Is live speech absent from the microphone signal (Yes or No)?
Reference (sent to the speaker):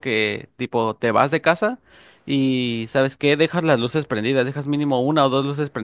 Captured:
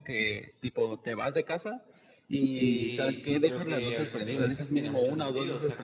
No